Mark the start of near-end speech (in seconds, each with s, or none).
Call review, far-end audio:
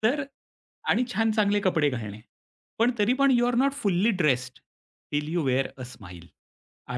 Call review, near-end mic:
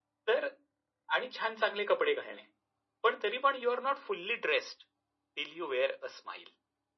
none